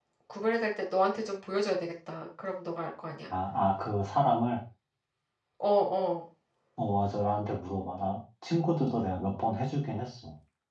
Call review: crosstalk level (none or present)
none